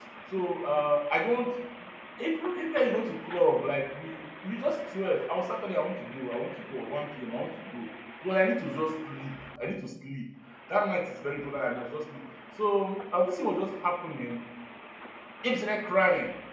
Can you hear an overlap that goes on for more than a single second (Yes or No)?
No